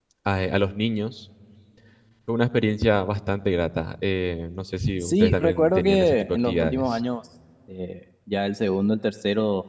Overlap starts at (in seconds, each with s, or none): 5.0 s